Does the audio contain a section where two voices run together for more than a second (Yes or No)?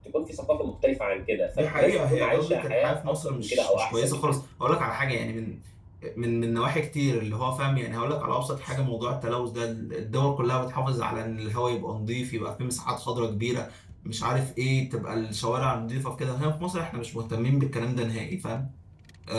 Yes